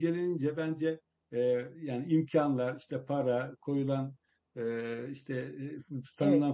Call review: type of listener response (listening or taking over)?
listening